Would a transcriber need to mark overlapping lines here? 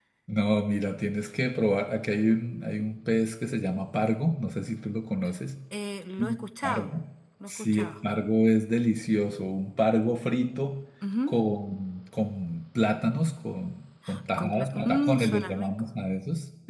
Yes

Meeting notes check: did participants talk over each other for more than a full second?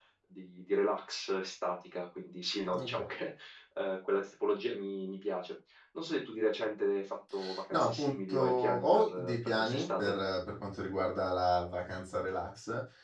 Yes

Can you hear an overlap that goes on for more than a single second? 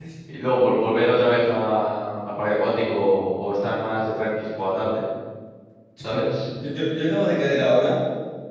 No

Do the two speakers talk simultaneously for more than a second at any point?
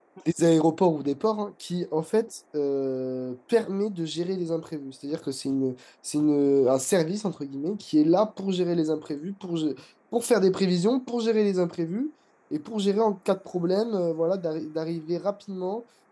No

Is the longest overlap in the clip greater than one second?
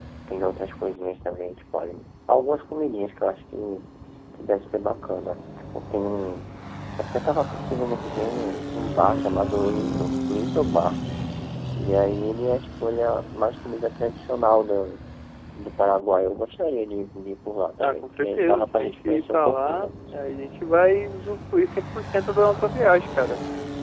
Yes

